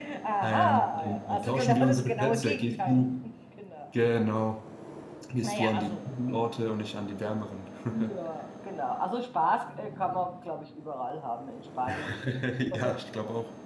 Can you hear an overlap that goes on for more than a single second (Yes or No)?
Yes